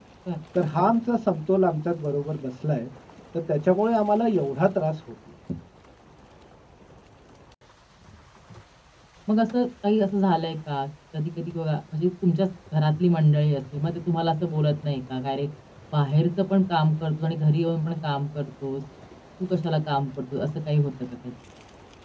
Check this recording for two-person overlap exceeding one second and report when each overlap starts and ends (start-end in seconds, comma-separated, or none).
none